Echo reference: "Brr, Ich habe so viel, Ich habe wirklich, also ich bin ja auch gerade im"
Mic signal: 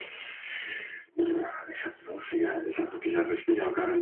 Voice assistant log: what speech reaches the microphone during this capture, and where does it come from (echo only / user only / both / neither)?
echo only